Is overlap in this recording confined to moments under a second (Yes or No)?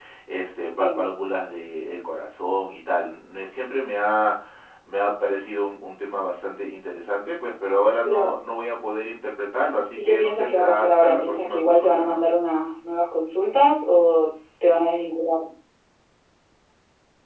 No